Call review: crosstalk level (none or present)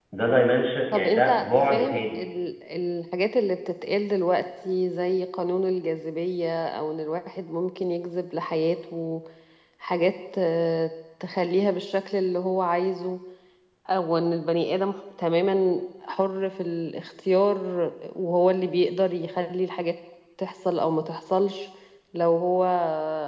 present